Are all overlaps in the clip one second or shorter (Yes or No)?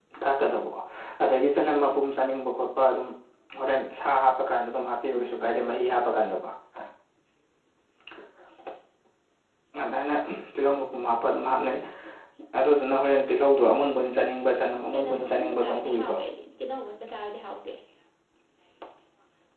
No